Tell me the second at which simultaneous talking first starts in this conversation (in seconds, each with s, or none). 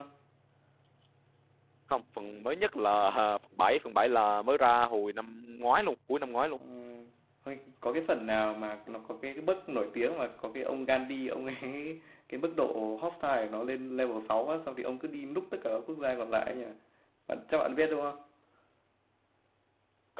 none